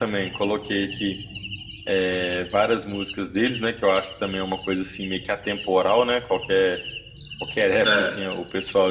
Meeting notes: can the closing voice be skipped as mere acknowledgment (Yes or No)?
Yes